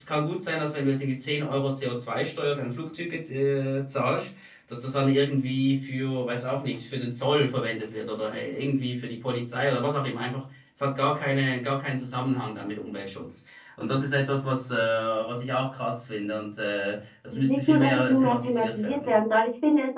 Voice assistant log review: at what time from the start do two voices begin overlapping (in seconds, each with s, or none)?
17.3 s